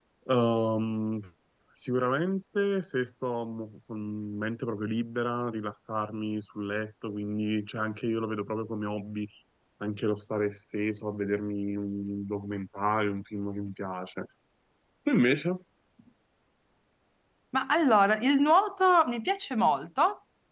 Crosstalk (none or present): none